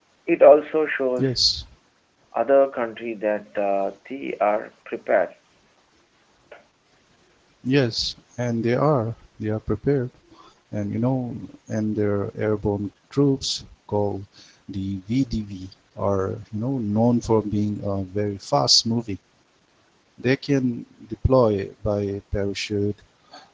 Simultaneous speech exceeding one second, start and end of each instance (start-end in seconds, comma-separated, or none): none